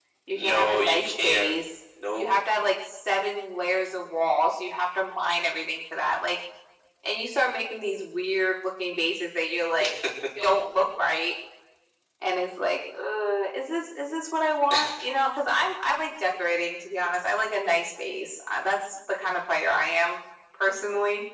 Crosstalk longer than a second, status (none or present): present